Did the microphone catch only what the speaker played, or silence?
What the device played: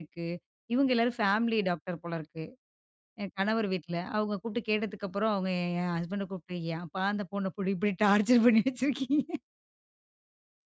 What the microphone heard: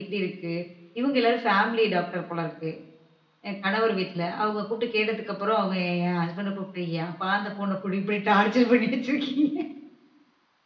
Yes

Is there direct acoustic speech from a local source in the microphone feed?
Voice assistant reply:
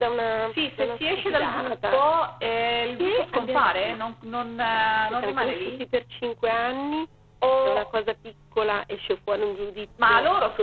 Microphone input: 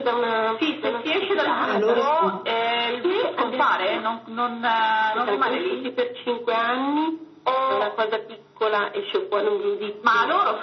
Yes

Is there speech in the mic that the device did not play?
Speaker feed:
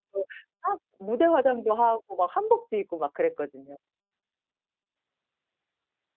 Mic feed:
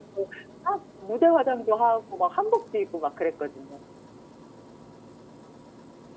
No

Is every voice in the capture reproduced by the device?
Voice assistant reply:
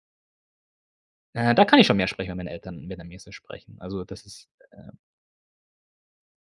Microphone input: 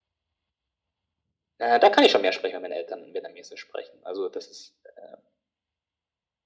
Yes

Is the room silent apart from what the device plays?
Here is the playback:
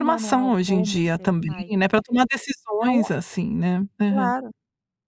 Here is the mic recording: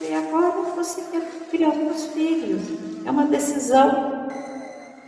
No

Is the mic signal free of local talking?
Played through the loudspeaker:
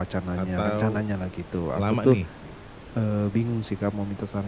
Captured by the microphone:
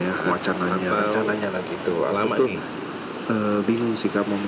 Yes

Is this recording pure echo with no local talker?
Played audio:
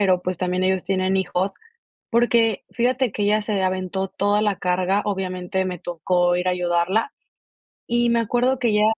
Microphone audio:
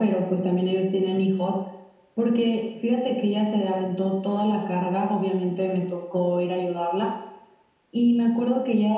Yes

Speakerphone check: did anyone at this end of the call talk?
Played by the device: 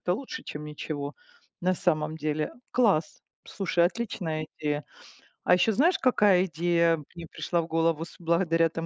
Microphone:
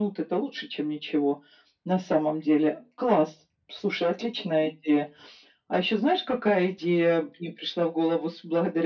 No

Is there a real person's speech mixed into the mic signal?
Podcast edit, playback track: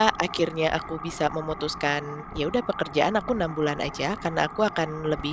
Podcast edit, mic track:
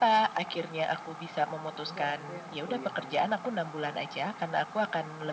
Yes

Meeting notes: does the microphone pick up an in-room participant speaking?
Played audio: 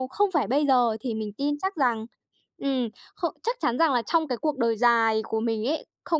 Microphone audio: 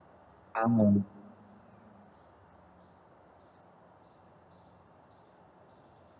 Yes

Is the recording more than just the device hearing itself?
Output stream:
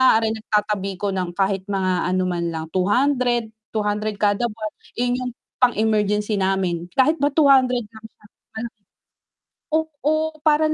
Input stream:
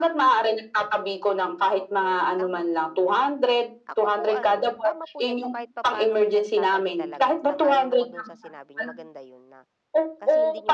Yes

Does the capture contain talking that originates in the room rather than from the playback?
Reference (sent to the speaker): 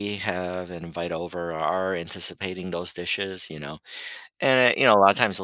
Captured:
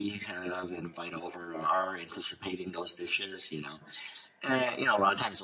No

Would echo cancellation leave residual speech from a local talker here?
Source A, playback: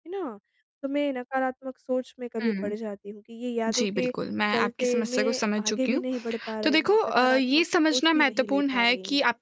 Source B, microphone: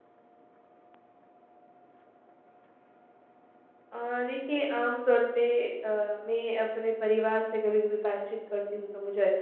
Yes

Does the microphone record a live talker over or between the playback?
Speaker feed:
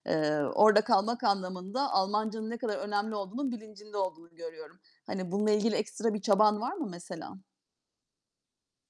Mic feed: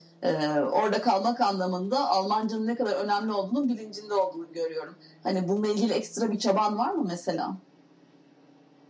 No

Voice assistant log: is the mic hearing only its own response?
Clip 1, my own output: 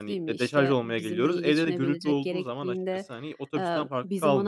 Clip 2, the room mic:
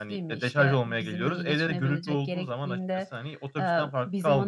Yes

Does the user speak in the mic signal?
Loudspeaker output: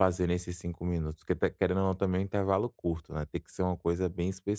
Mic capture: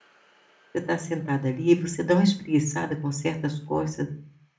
Yes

